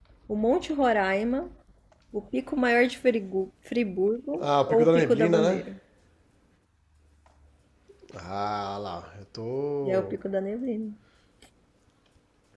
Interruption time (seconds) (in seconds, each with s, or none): 4.4 s